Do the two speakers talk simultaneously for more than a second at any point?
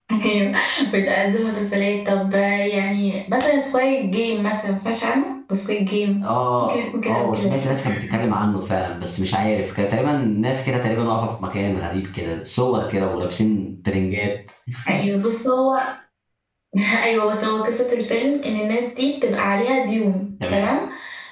Yes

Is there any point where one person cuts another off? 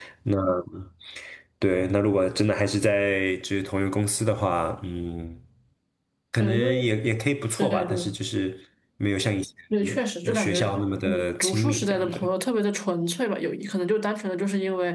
Yes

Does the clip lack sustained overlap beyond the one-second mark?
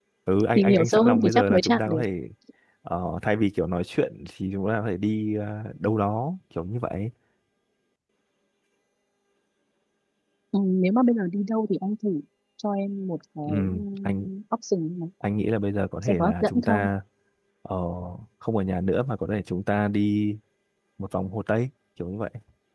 No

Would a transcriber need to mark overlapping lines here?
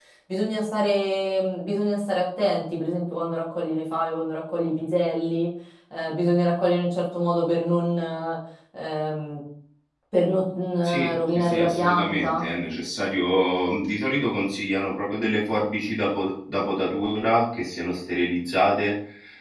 Yes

